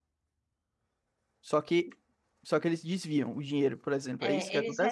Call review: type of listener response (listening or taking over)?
taking over